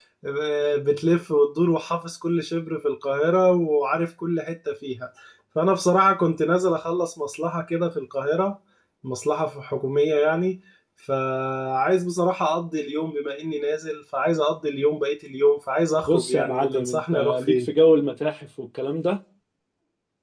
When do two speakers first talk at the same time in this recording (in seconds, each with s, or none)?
16.1 s